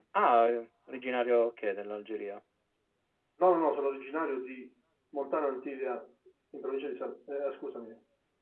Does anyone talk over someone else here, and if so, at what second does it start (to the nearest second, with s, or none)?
none